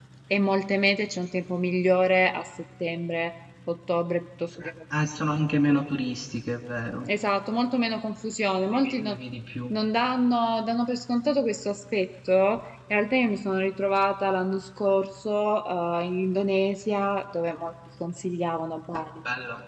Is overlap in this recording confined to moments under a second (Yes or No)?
Yes